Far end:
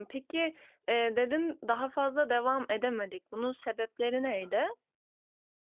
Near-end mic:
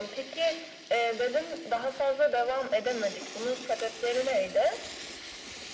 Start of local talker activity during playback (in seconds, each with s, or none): none